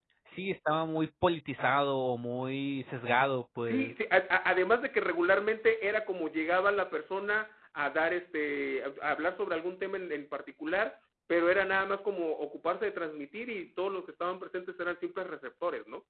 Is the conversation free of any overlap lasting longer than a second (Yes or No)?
Yes